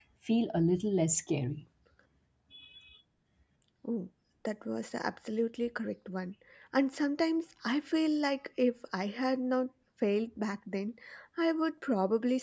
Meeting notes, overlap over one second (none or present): none